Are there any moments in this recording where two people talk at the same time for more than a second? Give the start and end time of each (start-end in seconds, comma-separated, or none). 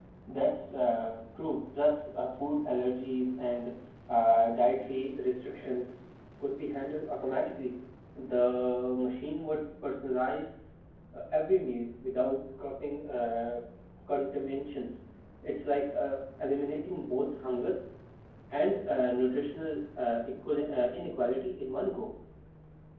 none